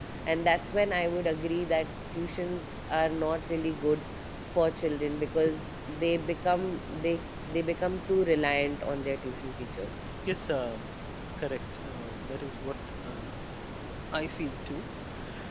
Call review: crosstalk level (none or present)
none